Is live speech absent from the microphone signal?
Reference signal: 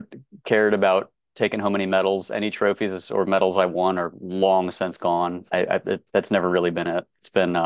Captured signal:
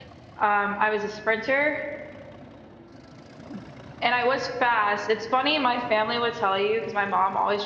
No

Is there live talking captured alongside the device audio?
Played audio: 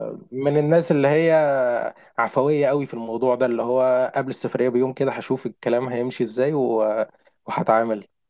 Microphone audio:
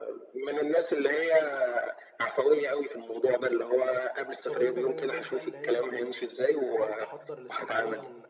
Yes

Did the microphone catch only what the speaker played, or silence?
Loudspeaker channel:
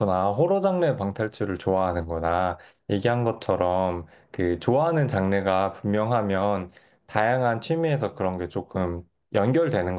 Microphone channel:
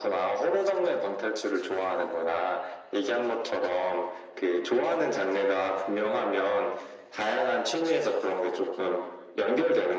Yes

